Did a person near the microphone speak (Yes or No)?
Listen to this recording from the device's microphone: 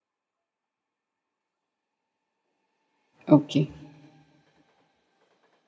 Yes